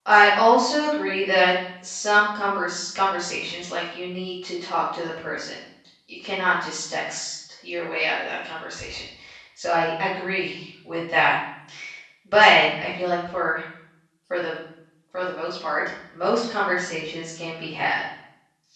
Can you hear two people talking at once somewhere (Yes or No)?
No